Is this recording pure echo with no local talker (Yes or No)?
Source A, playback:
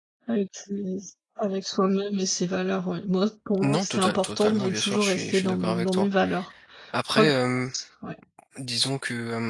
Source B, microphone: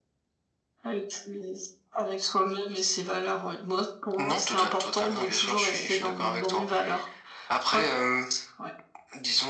Yes